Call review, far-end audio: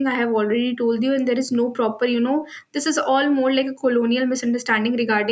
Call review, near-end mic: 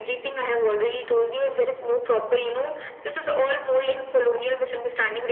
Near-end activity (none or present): none